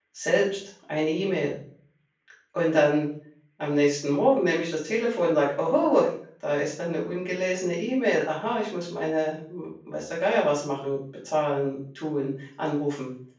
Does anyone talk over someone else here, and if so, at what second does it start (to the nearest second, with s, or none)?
none